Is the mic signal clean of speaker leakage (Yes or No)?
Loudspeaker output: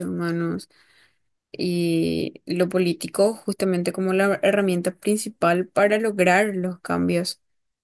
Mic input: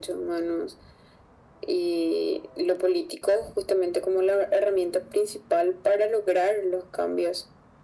No